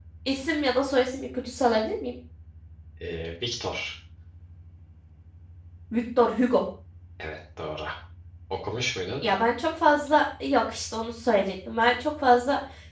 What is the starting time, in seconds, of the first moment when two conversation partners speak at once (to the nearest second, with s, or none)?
none